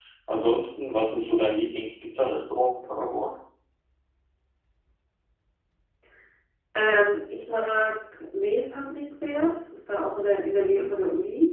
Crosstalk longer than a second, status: none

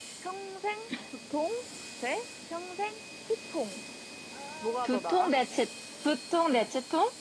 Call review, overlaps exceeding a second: none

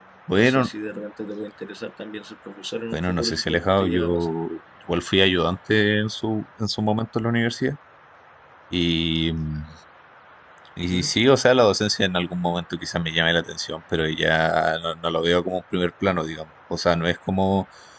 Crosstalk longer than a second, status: present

